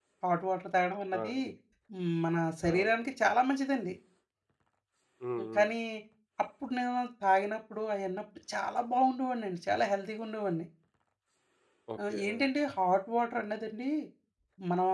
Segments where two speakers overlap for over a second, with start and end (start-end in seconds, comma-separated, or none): none